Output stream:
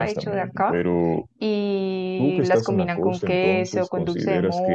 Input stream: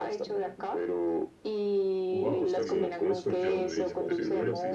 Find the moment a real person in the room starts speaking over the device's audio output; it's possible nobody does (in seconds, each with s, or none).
2.1 s